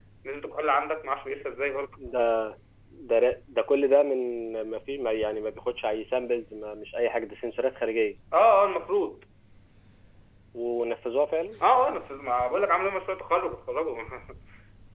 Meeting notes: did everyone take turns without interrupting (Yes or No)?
Yes